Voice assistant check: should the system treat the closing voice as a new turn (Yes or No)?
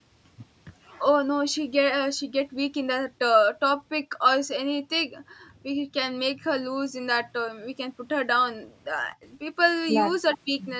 No